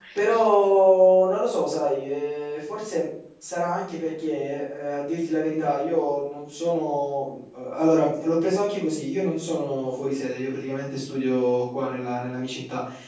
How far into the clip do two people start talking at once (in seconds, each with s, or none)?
none